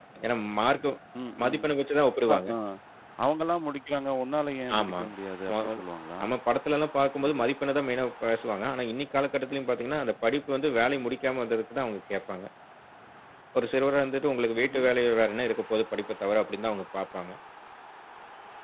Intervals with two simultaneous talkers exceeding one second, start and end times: none

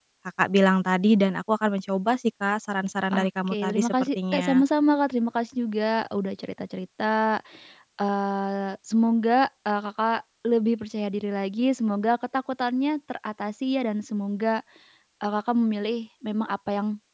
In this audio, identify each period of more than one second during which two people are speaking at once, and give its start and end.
3.1-4.6

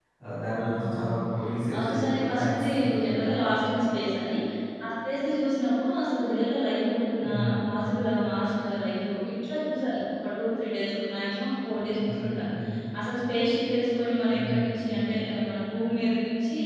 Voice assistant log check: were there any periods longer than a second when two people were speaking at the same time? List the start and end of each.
1.8-3.4

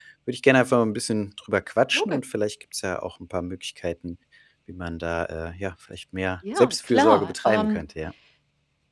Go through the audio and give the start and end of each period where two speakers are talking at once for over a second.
6.5-7.8

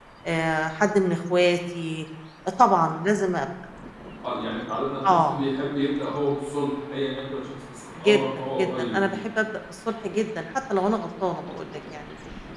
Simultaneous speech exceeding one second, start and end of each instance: 8.0-9.2

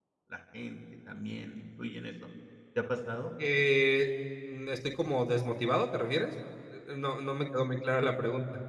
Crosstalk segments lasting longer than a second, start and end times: none

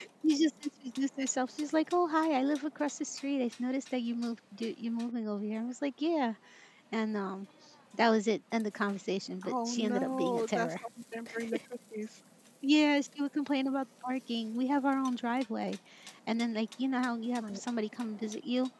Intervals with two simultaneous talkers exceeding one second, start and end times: 9.4-10.7

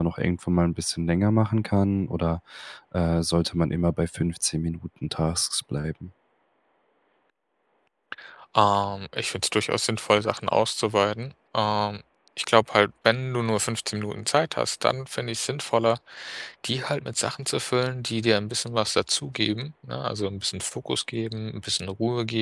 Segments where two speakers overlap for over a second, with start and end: none

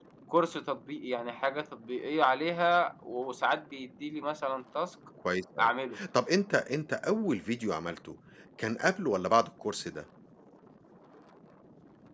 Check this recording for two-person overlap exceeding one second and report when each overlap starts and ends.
none

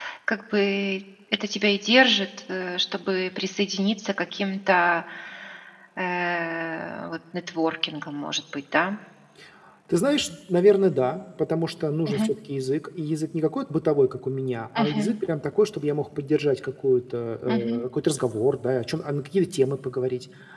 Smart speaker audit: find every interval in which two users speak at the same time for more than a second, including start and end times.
none

